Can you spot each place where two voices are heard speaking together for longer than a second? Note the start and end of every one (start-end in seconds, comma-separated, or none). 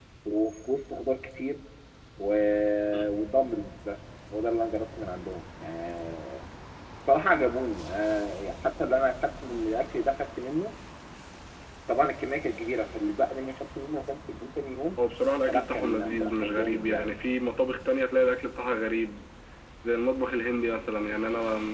15.5-17.1